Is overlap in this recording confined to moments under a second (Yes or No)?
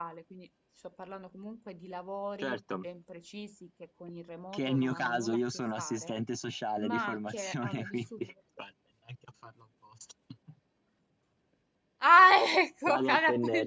No